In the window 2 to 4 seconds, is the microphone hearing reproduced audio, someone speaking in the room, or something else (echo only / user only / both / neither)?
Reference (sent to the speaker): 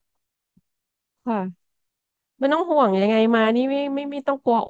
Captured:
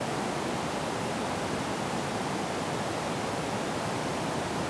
neither